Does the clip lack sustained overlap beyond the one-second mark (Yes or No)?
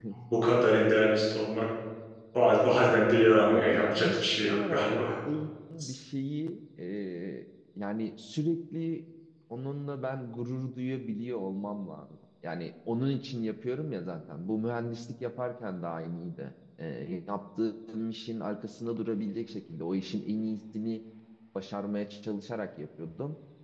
No